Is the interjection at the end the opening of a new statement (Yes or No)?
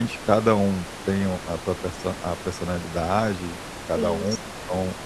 No